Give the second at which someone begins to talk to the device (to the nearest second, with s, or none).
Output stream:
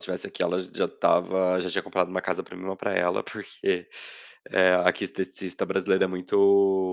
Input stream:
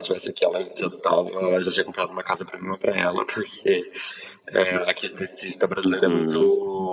6 s